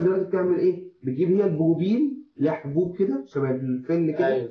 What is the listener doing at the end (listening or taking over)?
taking over